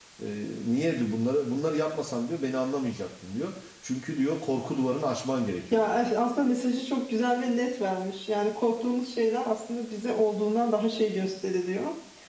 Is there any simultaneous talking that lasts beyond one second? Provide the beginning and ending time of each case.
none

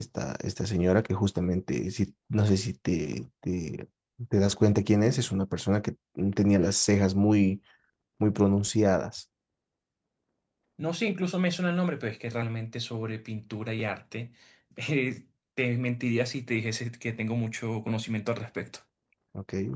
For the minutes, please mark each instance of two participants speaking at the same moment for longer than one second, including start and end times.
none

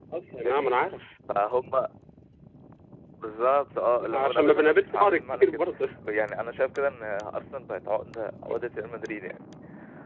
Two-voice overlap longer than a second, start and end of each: 4.1-5.6

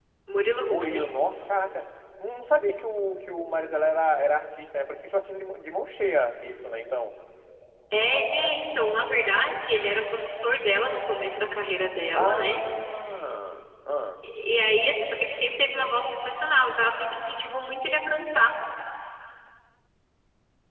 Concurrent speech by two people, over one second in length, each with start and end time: none

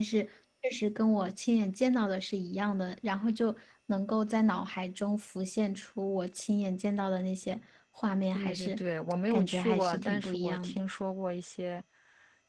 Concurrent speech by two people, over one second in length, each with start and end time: 9.3-10.8

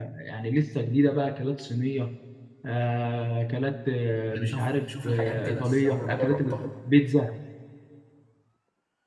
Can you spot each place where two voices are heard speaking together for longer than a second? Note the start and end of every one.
4.3-6.7

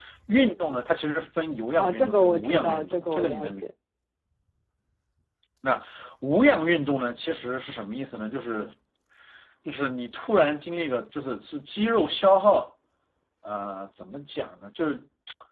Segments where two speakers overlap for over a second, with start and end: 1.8-3.6

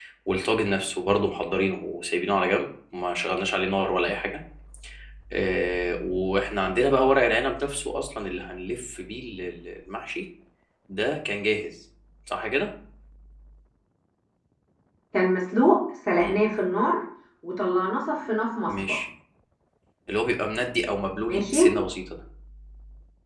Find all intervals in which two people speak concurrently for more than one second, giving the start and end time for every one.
none

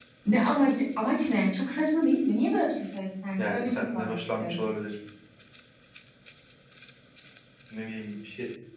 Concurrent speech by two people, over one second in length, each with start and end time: 3.4-4.6

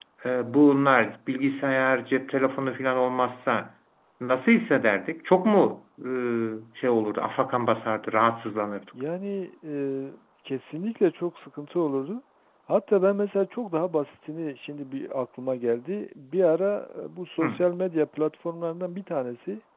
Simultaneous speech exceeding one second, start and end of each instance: none

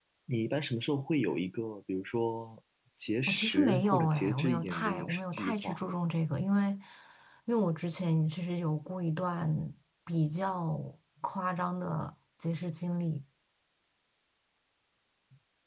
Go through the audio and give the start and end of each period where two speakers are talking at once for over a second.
3.3-5.8

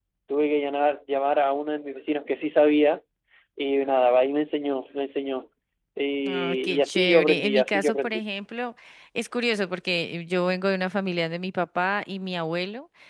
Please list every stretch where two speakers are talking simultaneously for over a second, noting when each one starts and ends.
6.2-8.2

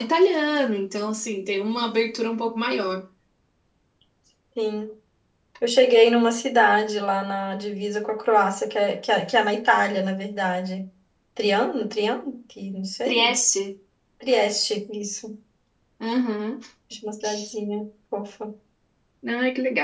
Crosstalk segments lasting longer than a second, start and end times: none

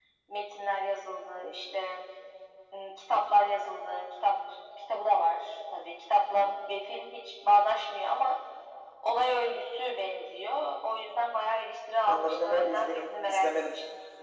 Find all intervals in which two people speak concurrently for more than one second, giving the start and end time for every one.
12.0-13.6

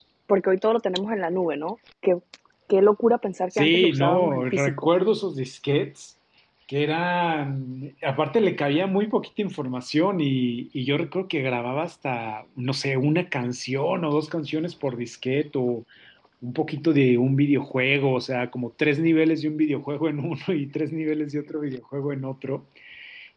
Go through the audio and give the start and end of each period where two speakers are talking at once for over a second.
3.6-4.9

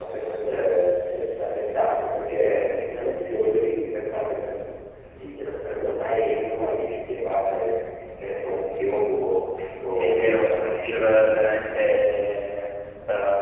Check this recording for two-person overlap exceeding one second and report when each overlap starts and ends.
9.9-11.5

